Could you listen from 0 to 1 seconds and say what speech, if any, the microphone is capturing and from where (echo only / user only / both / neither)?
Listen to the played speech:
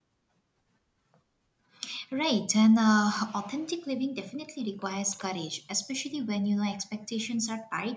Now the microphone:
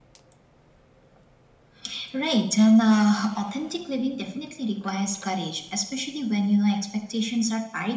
neither